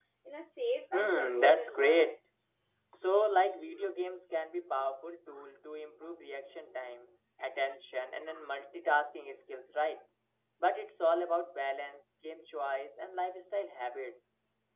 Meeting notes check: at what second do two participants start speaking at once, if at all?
0.9 s

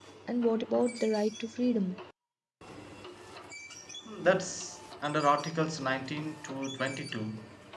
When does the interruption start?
none

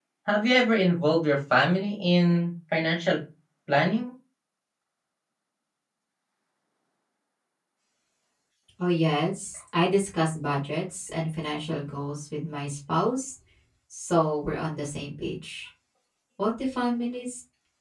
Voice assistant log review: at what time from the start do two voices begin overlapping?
none

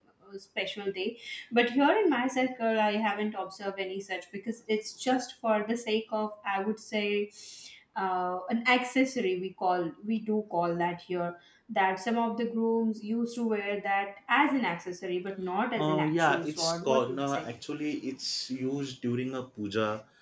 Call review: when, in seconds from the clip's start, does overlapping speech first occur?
15.8 s

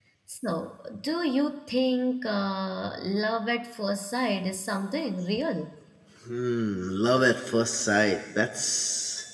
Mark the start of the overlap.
none

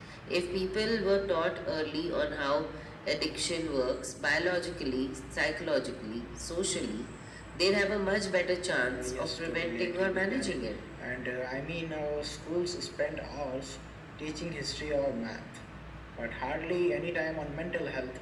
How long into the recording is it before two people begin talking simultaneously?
8.8 s

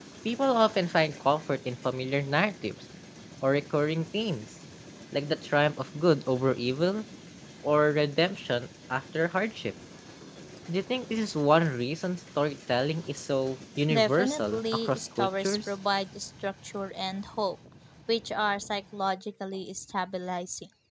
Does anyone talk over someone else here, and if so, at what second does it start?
13.9 s

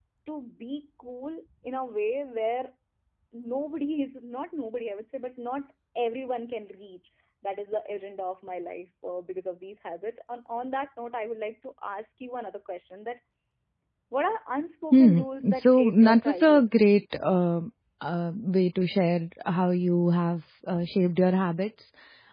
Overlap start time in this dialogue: 14.9 s

